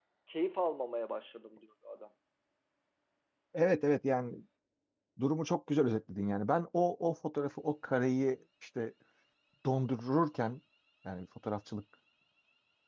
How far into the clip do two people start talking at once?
none

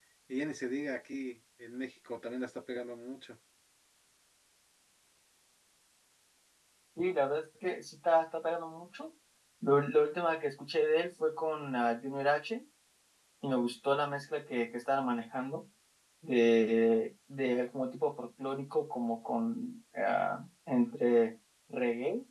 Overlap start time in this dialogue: none

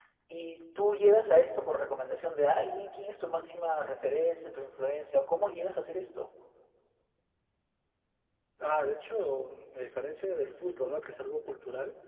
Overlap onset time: none

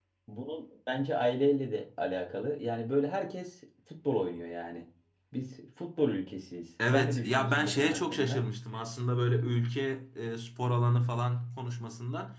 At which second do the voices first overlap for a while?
6.8 s

